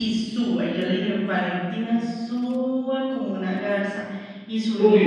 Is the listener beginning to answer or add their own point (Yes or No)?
Yes